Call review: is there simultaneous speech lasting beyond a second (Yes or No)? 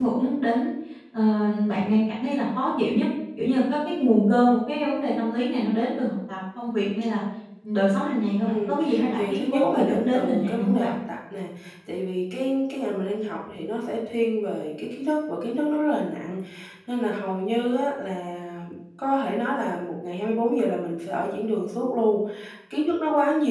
Yes